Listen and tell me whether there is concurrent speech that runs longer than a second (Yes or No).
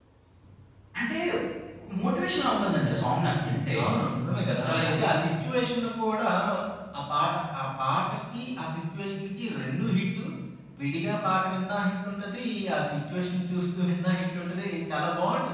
No